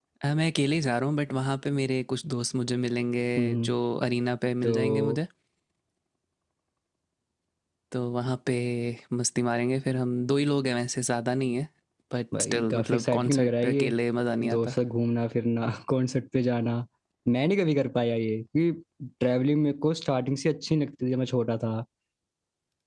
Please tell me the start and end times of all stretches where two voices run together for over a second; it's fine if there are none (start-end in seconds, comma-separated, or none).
12.5-14.0